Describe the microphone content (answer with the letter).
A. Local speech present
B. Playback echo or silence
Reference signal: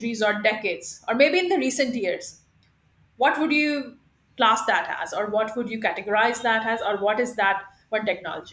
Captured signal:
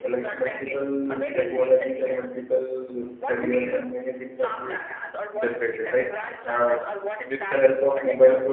A